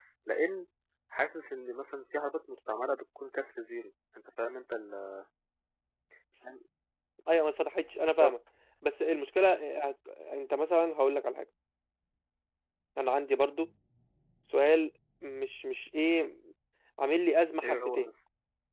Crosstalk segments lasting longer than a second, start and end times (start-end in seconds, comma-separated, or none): none